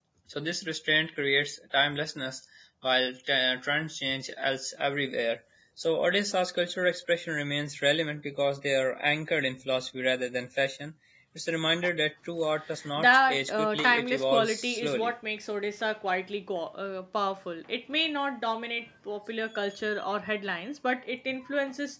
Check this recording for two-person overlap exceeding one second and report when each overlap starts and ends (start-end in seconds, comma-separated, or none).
13.0-15.1